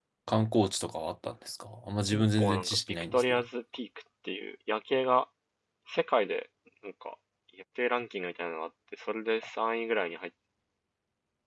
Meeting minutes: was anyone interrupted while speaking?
Yes, from 2.1 s

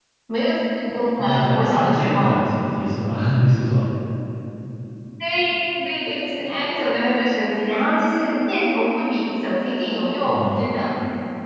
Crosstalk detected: Yes, from 1.2 s

